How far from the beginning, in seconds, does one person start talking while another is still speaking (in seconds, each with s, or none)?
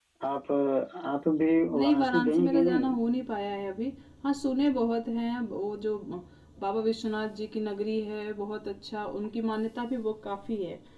1.7 s